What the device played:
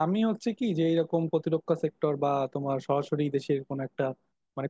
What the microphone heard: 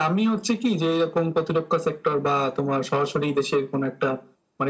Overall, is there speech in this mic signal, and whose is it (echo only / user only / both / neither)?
echo only